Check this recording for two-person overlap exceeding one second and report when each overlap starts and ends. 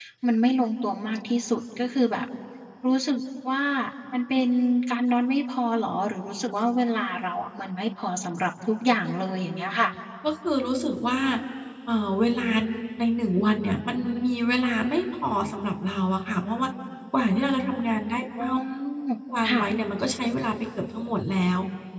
none

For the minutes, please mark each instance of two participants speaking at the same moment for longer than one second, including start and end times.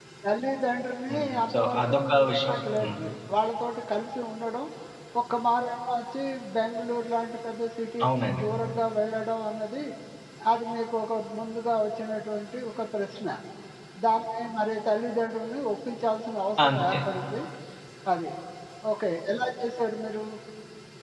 1.1-3.0

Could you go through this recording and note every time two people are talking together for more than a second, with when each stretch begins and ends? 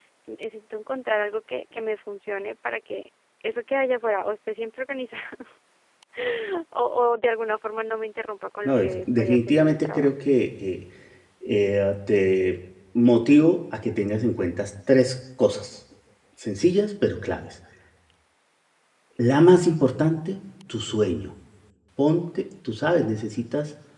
8.7-10.1

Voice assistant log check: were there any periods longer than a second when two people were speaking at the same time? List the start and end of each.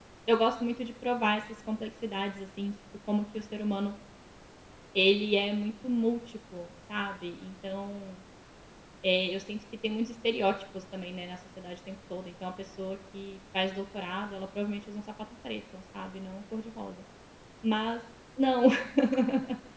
none

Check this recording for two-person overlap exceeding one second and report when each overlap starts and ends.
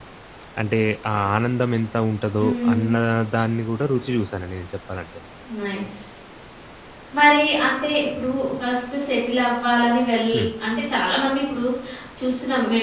none

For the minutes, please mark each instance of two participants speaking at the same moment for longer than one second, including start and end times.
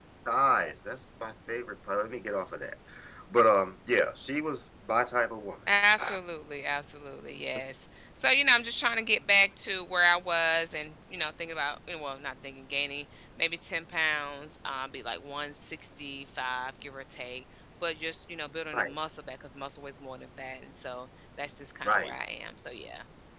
none

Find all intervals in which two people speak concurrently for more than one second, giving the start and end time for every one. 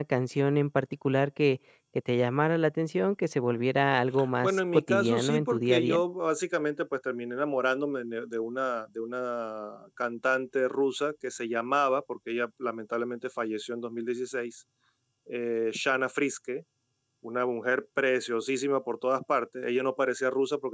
4.4-6.0

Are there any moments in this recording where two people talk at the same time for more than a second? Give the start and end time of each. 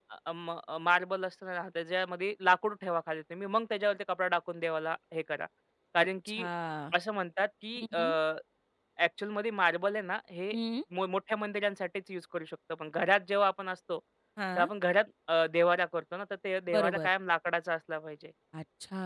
none

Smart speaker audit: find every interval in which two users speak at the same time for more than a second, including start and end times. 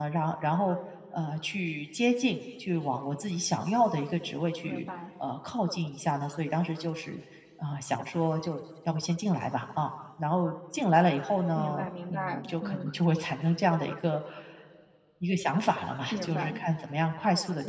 11.5-12.9

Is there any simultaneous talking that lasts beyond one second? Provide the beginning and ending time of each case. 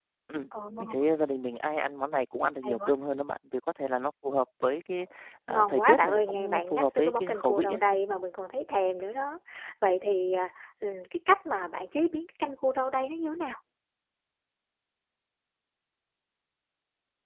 5.5-7.8

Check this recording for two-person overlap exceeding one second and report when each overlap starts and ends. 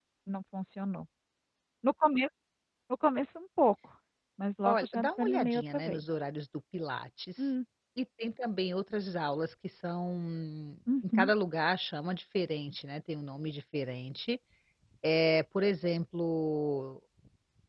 4.6-6.0

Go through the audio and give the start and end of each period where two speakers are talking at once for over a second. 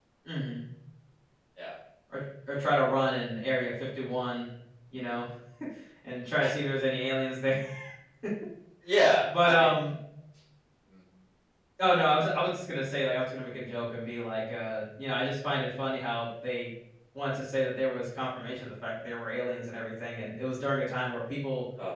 none

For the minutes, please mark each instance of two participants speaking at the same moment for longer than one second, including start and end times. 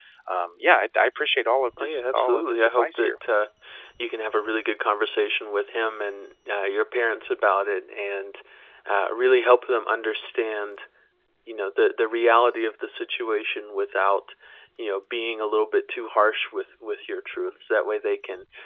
1.8-3.1

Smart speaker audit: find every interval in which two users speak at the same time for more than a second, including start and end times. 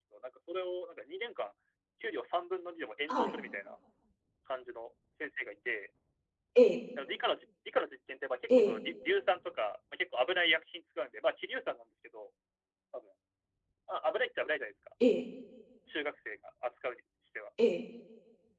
none

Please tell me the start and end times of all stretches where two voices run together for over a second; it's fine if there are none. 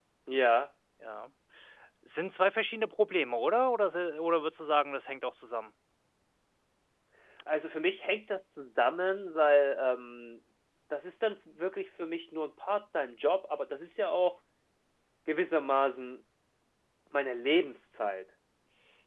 none

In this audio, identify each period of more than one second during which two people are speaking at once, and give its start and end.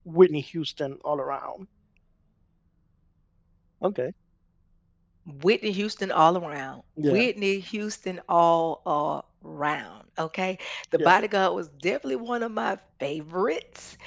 none

